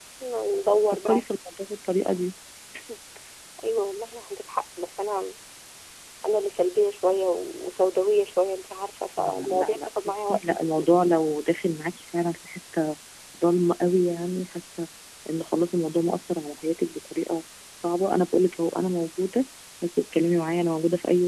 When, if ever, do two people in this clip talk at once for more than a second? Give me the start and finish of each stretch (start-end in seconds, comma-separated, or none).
9.2-10.8